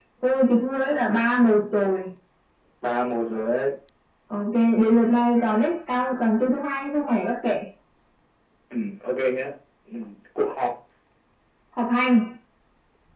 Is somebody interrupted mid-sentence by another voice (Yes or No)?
No